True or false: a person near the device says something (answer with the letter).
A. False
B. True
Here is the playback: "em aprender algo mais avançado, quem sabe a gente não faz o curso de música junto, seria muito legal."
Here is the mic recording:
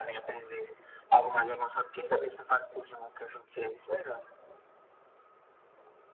A